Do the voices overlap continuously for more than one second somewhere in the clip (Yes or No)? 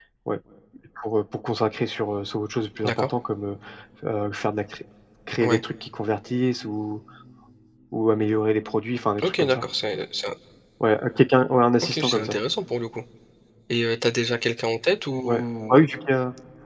No